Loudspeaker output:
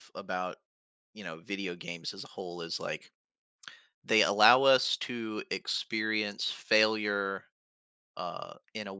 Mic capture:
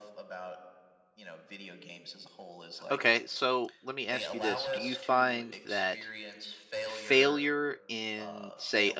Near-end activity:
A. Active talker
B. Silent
A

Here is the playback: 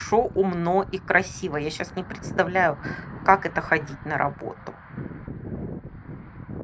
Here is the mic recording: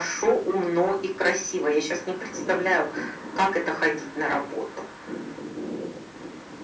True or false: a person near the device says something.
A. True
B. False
B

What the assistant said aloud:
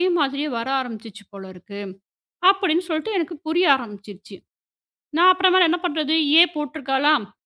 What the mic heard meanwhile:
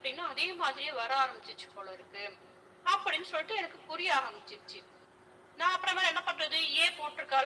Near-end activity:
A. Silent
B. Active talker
A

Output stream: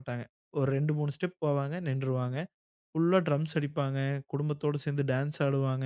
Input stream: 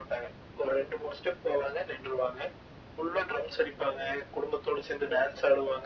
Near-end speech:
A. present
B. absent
B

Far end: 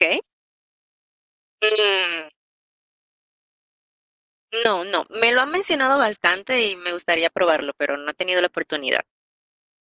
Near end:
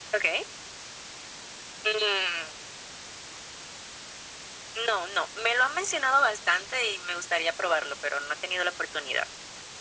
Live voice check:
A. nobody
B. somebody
A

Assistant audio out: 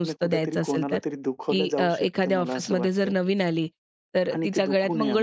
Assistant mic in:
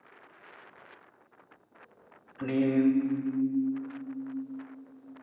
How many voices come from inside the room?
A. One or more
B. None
A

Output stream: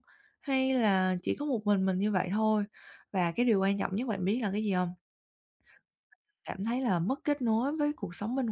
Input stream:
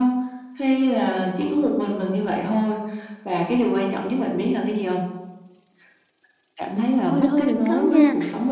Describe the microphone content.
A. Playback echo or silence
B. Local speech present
B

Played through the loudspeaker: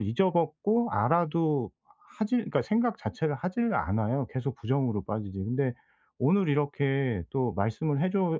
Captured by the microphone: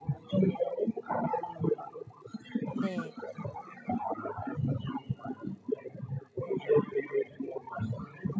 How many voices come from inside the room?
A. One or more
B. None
A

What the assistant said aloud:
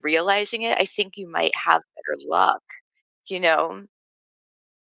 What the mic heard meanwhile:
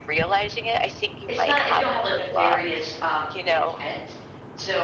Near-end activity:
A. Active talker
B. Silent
A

